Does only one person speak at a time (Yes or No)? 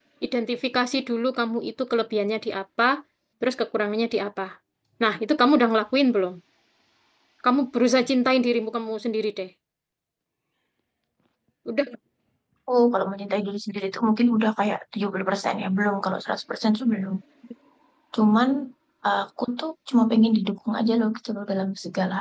Yes